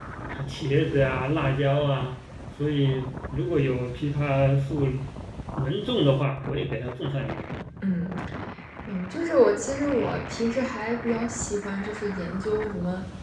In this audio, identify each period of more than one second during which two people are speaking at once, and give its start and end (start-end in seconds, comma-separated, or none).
none